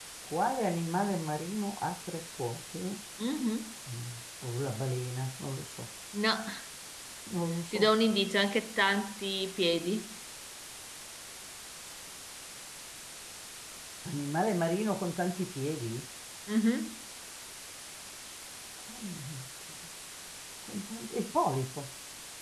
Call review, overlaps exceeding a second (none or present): none